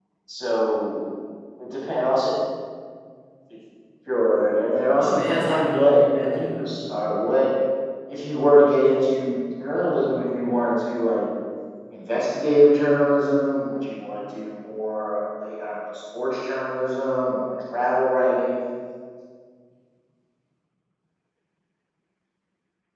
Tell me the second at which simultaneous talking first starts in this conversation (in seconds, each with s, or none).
5.0 s